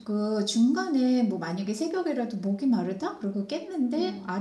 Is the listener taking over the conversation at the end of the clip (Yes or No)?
No